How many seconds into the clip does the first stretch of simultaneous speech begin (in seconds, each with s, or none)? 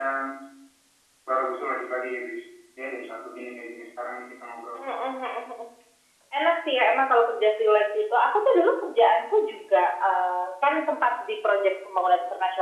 none